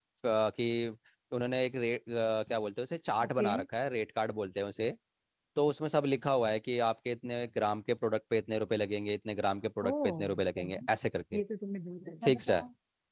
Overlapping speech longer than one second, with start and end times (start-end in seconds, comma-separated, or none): none